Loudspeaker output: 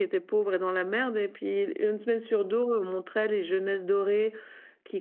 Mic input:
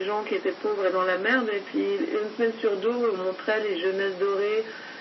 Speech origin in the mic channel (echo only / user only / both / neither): echo only